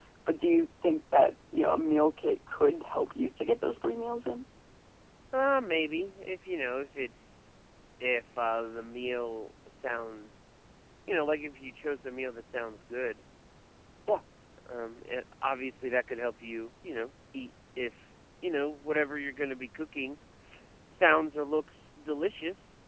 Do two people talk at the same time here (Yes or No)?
No